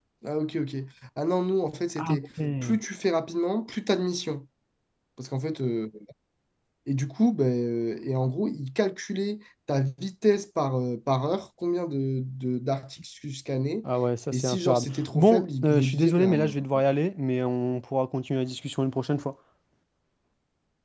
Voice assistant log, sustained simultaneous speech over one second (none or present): present